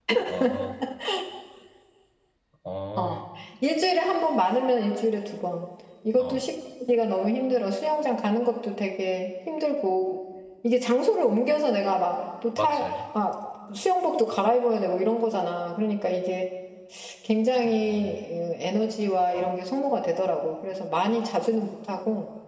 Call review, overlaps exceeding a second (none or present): none